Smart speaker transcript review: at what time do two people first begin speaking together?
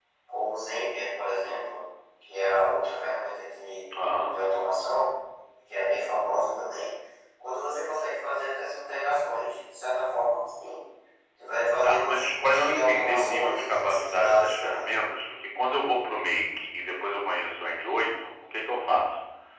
11.8 s

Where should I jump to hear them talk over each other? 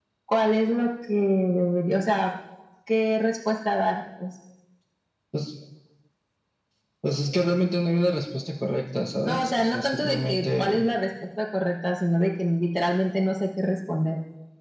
9.2 s

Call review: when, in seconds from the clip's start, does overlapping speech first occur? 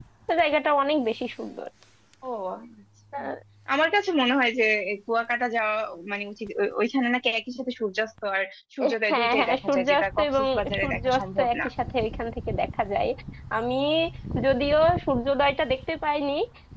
9.1 s

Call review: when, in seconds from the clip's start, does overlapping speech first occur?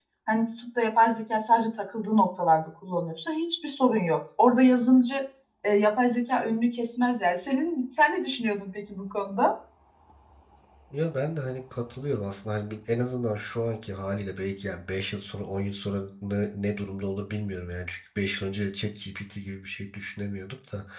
none

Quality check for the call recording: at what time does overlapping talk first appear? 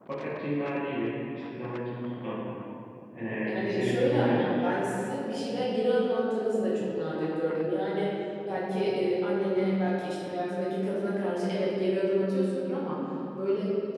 3.4 s

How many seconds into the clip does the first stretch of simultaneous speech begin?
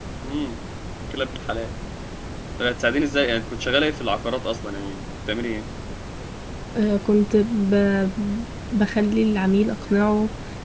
none

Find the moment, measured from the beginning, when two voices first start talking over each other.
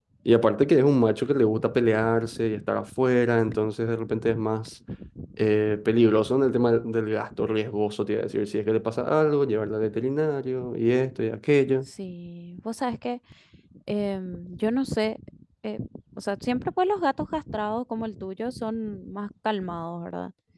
none

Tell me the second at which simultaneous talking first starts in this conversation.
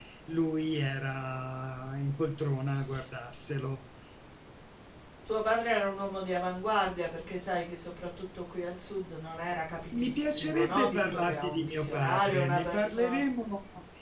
9.9 s

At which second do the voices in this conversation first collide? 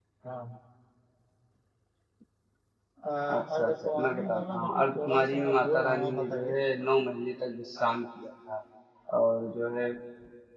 3.5 s

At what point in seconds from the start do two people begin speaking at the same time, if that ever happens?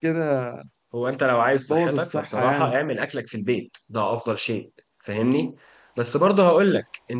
1.5 s

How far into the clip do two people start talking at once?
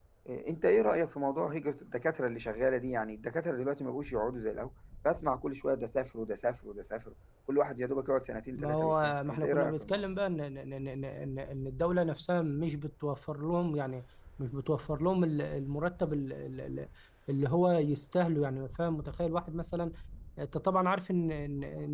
8.6 s

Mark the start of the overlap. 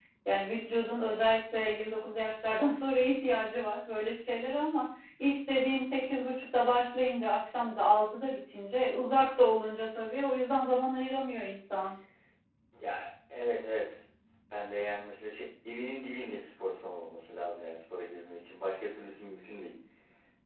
none

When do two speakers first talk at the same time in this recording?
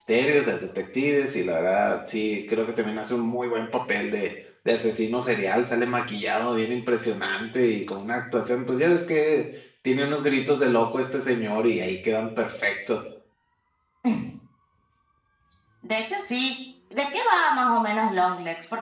none

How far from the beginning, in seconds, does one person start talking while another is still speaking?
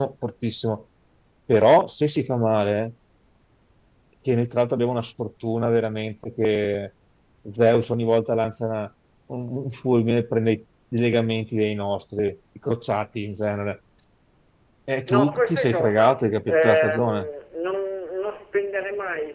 15.1 s

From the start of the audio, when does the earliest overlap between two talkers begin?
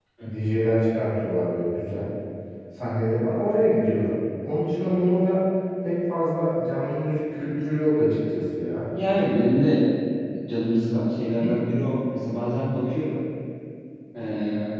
none

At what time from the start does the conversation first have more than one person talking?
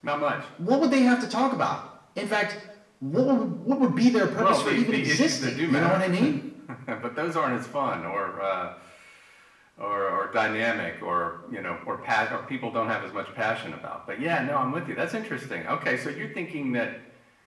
4.4 s

